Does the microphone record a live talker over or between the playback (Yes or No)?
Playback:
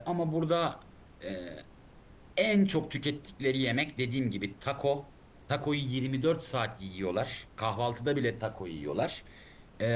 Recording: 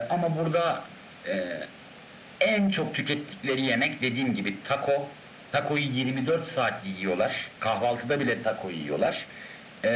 No